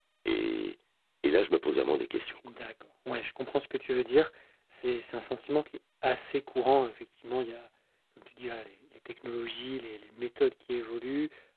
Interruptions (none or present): none